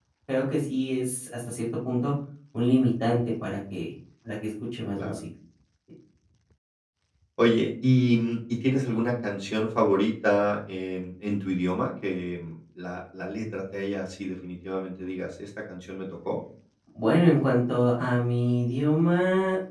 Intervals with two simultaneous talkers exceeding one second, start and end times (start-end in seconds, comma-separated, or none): none